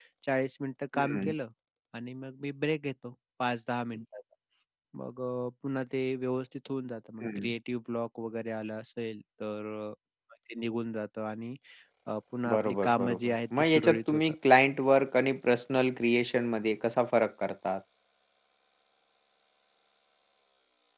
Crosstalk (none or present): present